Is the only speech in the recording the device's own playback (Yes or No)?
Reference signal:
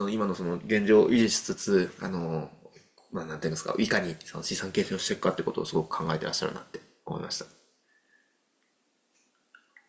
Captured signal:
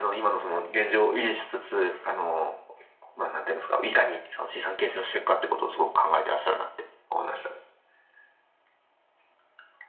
Yes